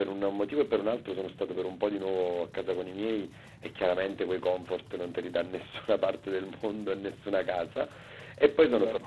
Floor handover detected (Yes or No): No